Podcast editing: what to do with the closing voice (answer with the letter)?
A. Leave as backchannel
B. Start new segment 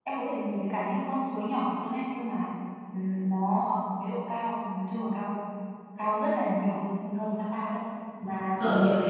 B